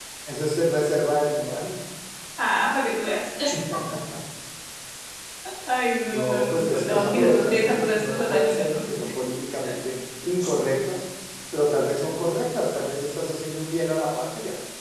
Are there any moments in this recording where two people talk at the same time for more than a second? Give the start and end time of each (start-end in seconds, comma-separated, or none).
6.1-8.8